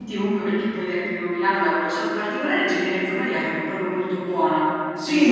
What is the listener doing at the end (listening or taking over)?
taking over